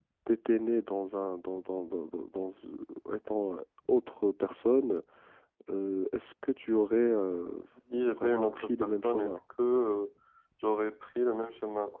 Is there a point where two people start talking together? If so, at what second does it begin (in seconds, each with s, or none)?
8.1 s